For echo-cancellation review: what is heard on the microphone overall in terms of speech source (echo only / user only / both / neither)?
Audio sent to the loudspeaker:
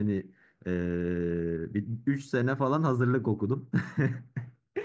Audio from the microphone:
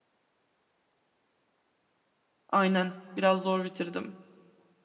user only